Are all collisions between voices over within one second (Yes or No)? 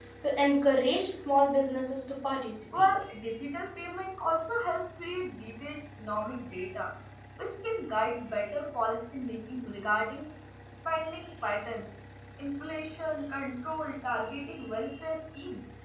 Yes